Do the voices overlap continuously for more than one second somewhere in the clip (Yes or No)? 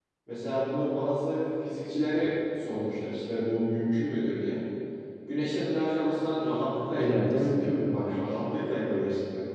Yes